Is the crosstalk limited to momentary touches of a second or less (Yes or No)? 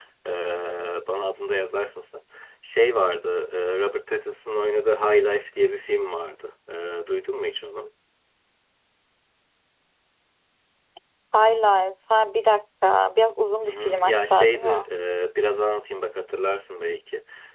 No